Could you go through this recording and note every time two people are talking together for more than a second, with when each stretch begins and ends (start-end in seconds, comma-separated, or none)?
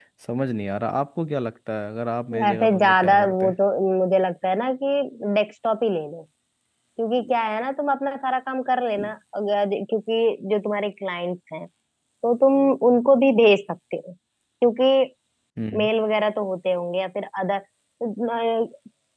2.3-3.6